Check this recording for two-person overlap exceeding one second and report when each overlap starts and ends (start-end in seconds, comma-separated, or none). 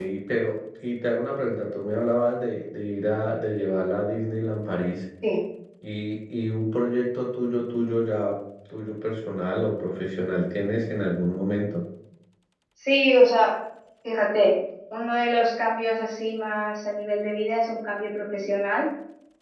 none